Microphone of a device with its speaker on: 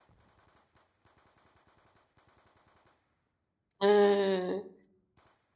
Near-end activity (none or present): present